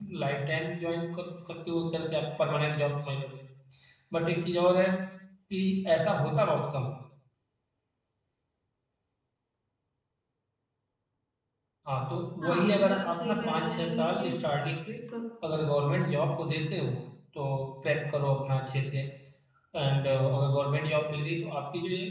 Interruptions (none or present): present